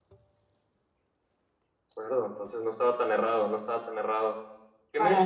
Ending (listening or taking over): listening